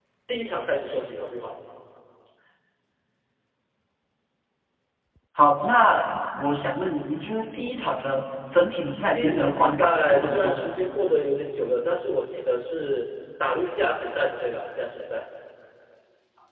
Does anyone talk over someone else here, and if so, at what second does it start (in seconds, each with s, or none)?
9.1 s